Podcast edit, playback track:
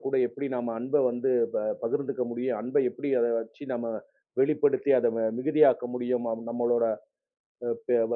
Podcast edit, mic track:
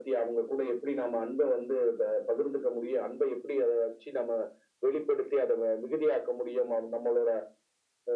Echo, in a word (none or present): present